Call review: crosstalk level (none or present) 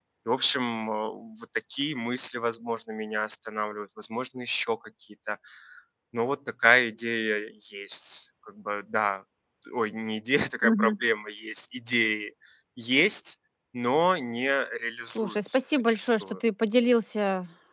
present